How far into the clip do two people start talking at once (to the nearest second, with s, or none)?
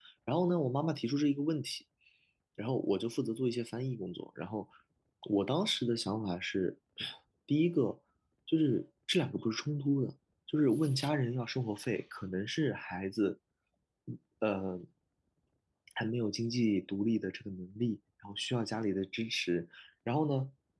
none